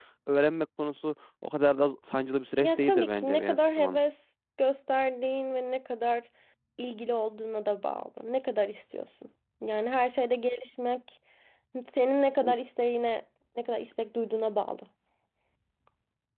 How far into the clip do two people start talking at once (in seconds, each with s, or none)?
2.6 s